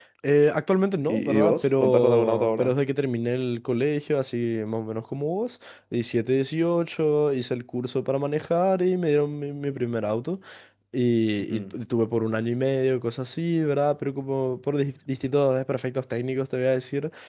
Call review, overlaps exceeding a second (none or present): present